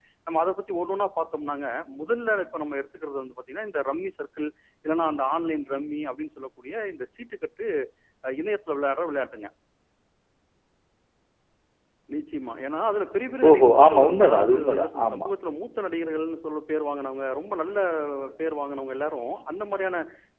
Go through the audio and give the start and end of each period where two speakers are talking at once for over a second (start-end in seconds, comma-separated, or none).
13.5-15.3